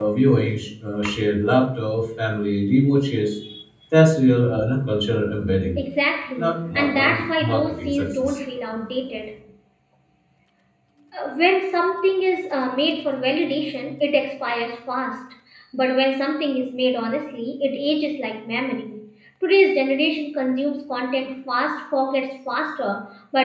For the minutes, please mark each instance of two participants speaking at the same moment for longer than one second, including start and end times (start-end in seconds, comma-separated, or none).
6.4-8.4